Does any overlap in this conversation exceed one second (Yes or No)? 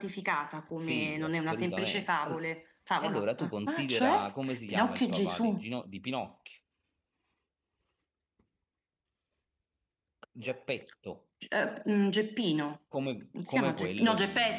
Yes